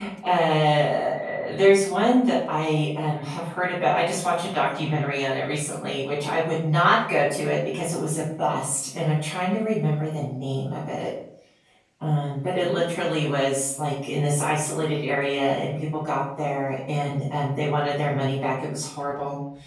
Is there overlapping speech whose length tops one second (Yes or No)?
No